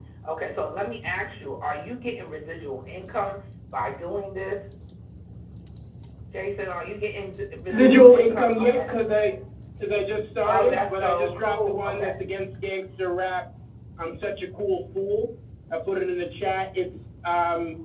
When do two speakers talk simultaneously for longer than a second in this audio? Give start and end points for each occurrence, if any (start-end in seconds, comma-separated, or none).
7.7-8.9, 10.4-12.1